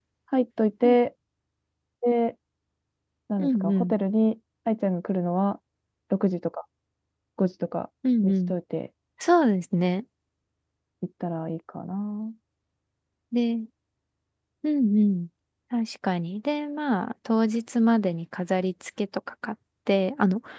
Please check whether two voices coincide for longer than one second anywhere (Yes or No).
No